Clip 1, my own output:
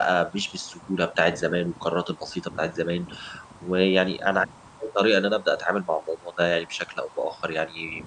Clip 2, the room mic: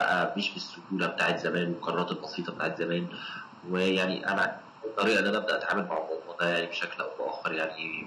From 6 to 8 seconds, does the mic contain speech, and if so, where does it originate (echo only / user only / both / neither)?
echo only